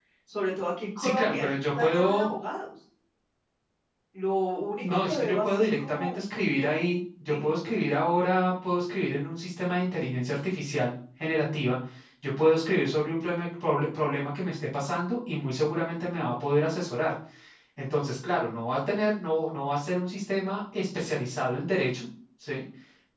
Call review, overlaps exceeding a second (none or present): present